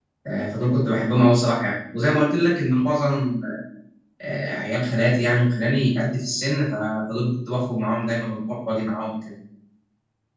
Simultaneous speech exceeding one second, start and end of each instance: none

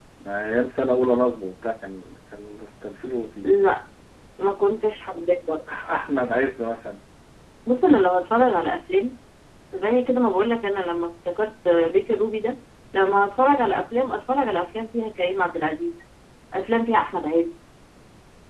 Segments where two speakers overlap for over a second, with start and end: none

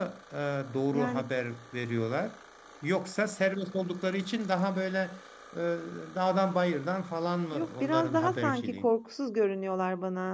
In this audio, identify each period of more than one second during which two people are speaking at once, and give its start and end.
7.5-8.9

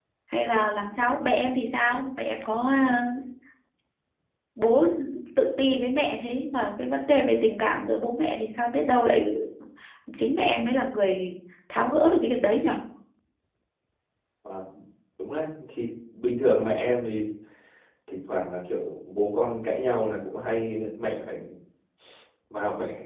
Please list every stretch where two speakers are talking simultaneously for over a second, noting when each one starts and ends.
none

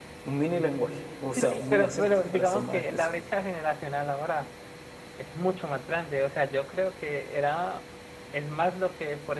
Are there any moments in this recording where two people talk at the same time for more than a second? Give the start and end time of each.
1.3-3.2

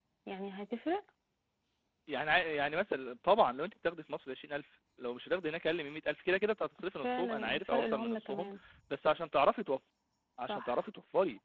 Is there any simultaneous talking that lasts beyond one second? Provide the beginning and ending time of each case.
7.0-8.5

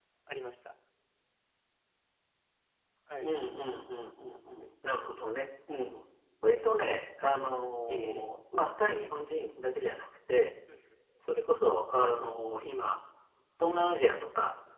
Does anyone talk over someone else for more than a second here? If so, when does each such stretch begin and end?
none

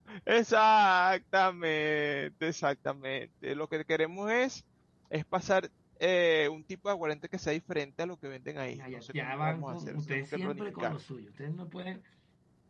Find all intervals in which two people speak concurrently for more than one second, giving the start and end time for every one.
8.7-10.9

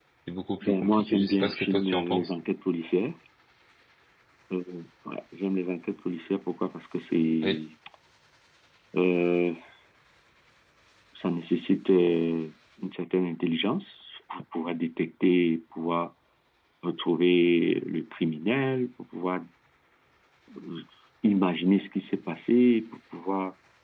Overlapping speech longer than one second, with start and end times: 0.6-2.3

